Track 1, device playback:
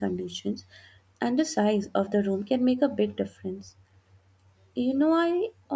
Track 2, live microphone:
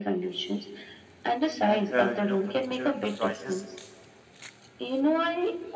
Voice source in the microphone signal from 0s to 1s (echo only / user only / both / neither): echo only